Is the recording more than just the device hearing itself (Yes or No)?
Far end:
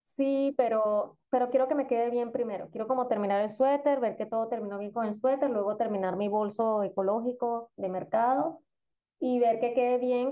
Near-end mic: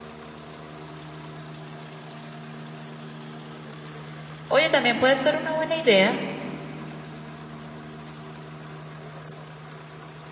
Yes